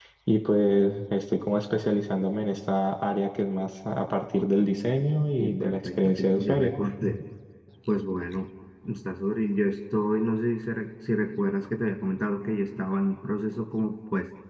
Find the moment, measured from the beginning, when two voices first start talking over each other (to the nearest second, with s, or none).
5 s